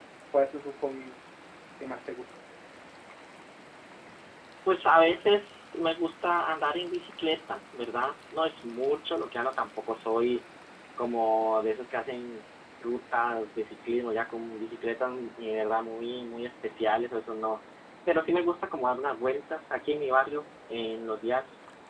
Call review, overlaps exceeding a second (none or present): none